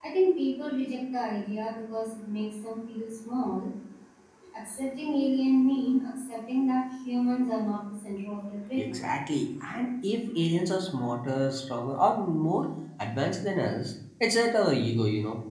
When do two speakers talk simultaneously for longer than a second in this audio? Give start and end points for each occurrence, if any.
none

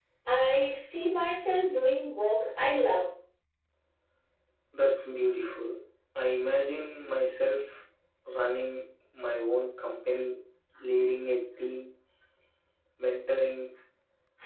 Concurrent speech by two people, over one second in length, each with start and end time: none

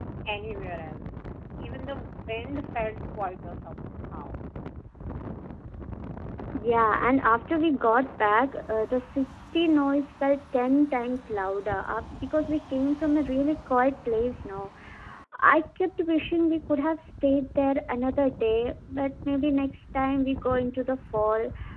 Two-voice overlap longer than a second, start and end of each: none

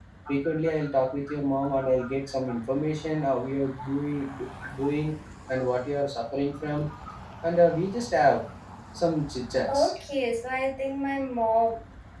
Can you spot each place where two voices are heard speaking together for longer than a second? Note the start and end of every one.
none

